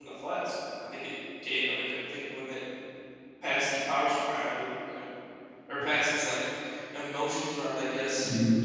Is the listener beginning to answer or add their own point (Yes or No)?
Yes